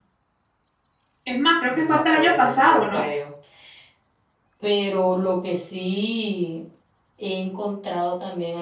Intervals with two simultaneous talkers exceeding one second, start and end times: 1.7-3.1

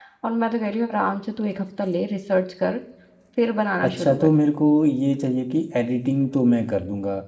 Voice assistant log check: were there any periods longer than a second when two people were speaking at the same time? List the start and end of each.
none

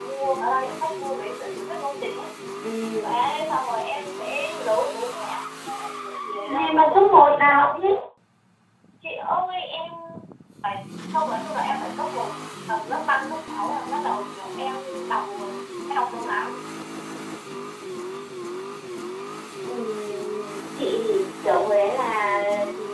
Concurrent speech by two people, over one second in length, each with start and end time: 6.5-8.0

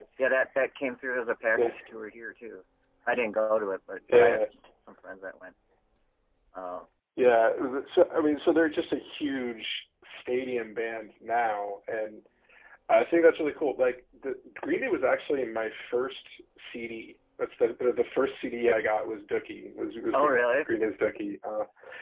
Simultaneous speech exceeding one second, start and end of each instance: none

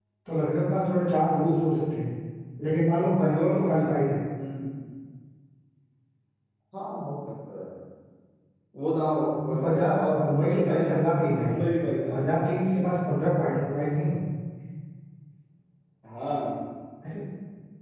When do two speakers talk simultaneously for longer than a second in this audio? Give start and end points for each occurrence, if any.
9.4-10.9

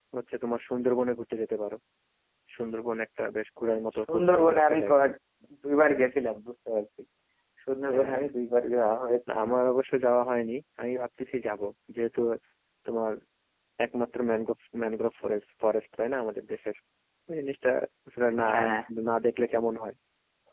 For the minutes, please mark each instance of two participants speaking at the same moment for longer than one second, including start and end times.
3.7-5.0

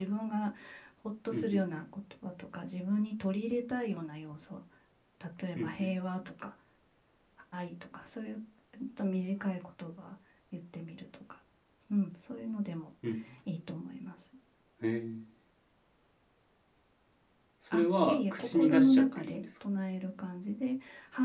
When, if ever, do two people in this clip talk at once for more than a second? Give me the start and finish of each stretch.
17.7-19.4

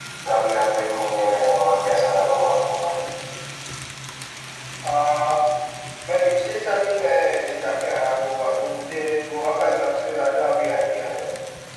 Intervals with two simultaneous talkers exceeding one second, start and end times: none

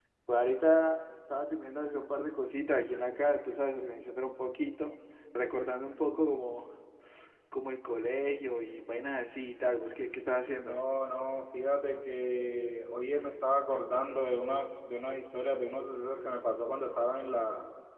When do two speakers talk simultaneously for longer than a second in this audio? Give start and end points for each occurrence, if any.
none

